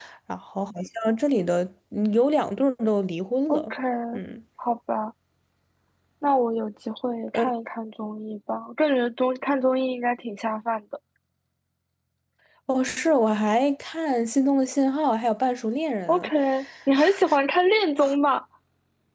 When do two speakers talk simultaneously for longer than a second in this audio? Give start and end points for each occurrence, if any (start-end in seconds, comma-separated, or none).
none